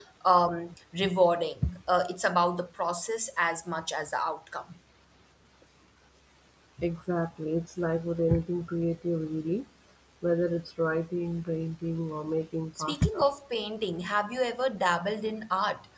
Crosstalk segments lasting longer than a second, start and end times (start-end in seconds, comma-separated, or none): none